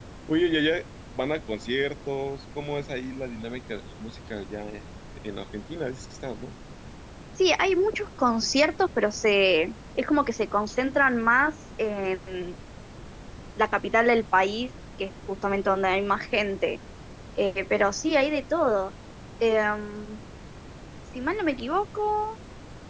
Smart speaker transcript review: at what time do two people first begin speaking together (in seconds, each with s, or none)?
none